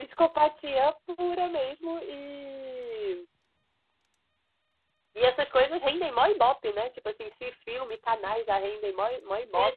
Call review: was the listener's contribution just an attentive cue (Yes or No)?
No